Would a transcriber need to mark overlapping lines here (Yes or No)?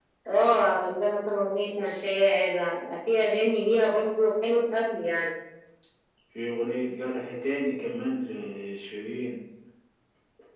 No